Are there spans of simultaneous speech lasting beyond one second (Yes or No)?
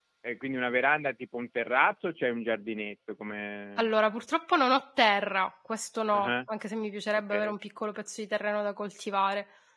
No